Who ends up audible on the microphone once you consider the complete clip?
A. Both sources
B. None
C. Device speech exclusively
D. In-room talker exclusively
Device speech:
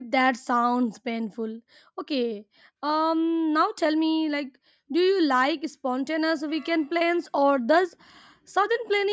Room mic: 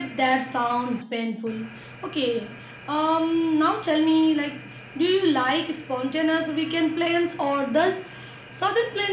C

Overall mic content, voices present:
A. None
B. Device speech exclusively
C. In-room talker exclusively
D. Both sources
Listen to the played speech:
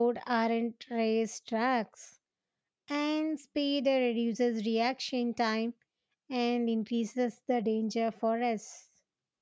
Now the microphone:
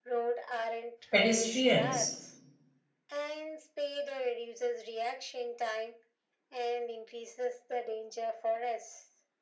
D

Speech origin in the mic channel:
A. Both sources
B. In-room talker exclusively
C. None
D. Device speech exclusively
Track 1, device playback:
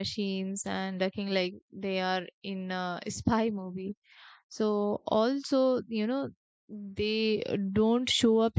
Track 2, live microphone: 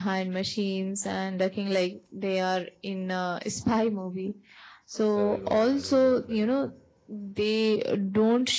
A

